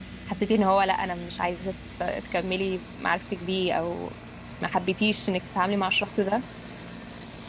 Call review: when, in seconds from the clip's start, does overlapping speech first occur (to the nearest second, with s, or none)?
none